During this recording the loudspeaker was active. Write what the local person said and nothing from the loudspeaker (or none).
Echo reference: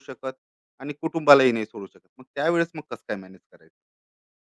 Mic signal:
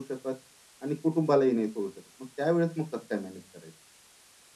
none